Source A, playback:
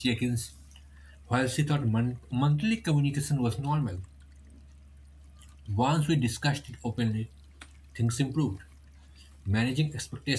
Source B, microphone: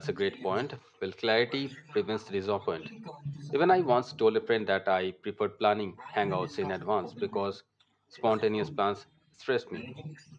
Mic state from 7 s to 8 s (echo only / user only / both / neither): both